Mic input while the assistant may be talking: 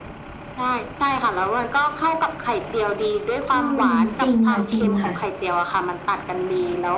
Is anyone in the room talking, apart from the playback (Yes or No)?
Yes